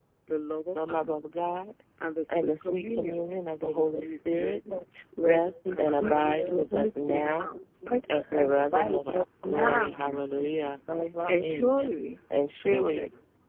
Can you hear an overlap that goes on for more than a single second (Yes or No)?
Yes